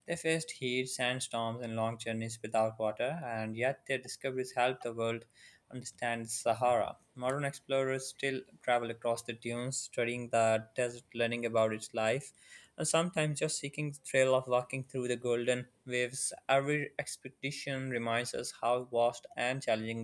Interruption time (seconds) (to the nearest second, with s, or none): none